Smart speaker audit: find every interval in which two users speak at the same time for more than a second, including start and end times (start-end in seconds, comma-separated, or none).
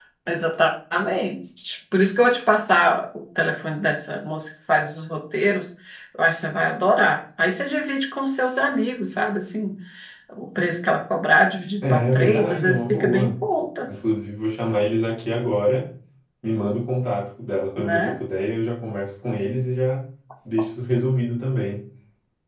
11.8-13.3